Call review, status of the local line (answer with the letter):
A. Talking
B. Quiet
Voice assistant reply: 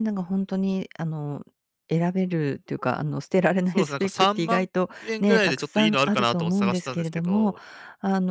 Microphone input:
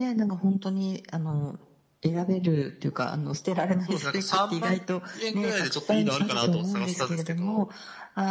B